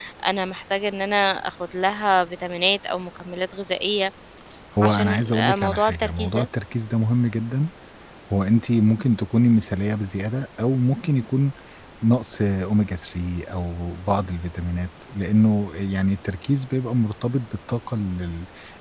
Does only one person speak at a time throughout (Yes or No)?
No